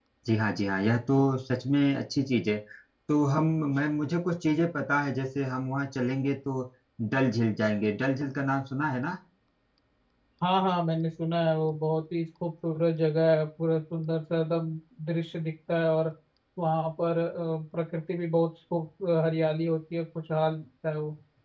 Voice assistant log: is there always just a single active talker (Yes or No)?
Yes